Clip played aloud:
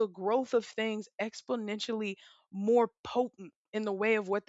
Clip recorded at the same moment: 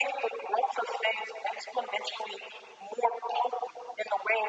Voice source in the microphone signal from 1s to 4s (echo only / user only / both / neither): echo only